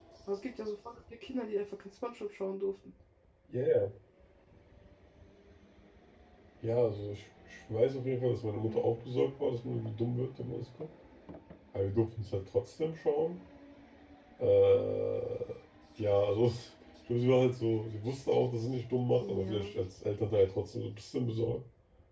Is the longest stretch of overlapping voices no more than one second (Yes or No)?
Yes